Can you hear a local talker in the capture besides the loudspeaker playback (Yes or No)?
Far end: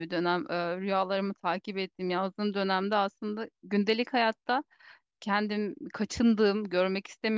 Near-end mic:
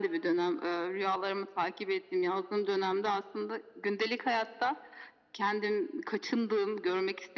No